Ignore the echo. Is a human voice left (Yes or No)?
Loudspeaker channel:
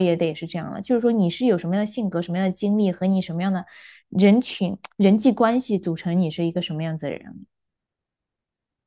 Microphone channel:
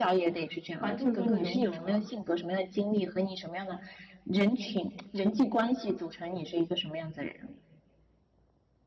Yes